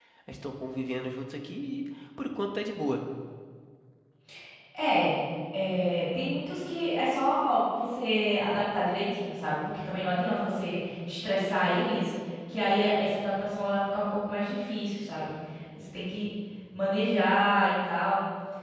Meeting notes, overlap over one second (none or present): none